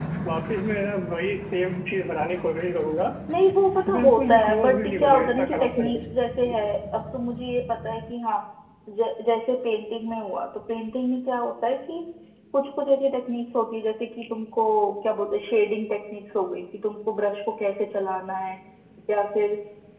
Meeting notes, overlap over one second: present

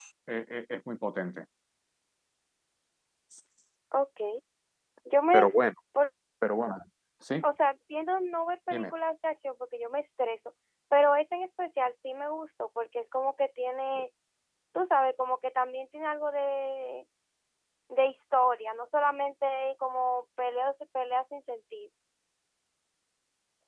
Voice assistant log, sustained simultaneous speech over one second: none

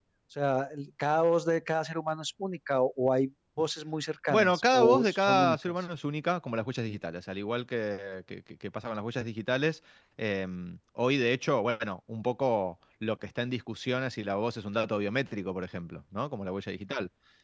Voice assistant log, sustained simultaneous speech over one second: present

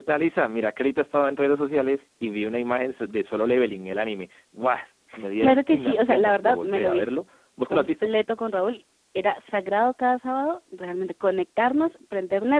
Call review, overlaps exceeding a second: present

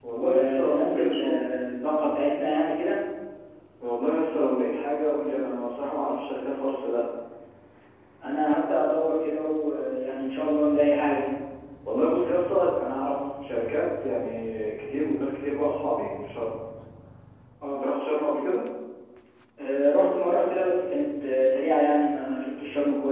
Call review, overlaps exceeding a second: present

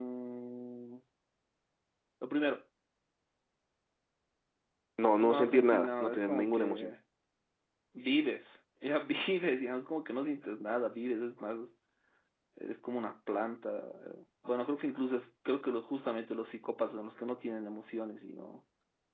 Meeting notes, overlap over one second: present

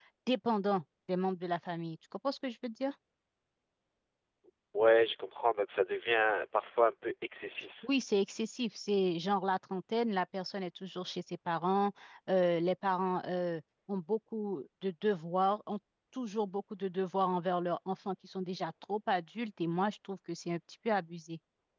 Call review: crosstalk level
none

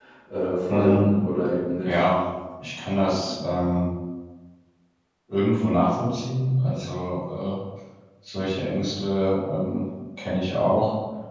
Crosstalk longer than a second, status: none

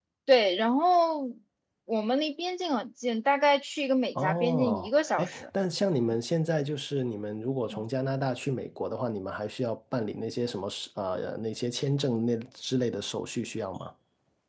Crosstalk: present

